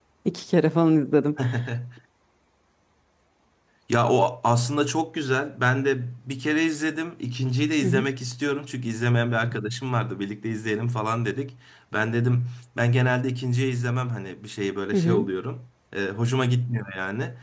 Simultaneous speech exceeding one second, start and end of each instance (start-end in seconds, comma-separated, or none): none